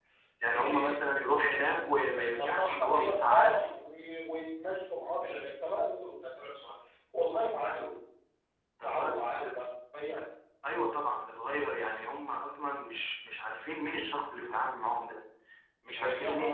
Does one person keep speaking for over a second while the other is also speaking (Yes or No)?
Yes